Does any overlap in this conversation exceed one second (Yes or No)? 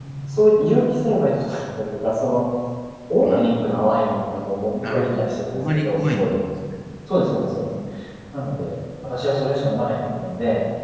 Yes